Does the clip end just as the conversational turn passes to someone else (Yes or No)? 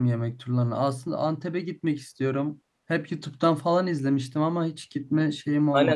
Yes